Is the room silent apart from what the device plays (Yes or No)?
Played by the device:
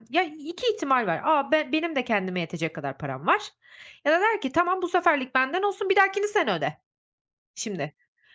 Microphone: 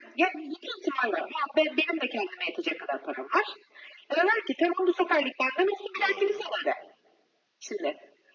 No